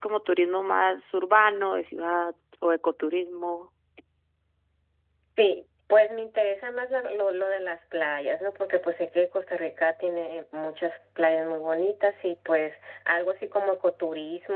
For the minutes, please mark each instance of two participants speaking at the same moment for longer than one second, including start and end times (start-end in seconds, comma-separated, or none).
none